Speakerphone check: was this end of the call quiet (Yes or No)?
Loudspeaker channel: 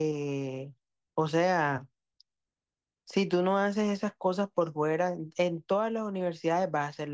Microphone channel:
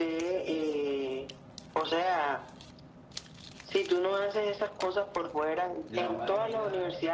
No